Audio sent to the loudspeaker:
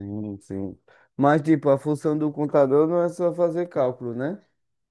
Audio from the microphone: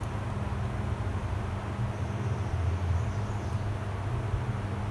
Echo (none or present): none